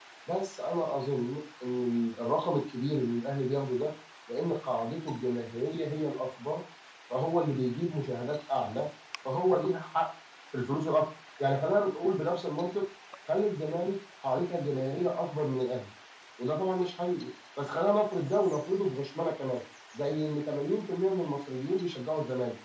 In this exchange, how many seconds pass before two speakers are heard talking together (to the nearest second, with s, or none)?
none